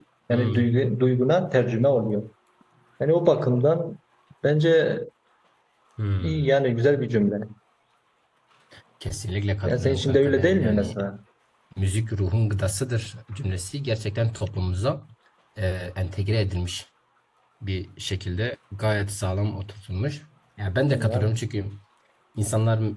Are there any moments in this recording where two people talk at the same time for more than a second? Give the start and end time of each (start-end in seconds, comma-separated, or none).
9.7-10.9